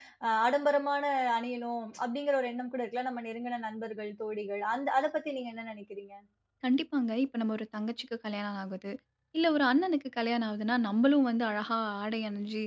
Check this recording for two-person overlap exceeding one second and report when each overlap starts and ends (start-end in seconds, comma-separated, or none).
none